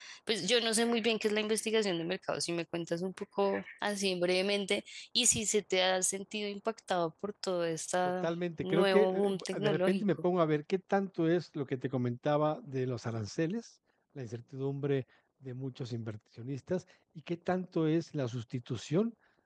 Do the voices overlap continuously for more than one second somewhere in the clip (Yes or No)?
Yes